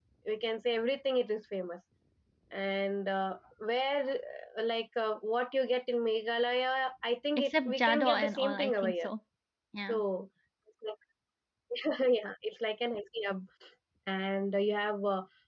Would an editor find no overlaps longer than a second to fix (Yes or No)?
No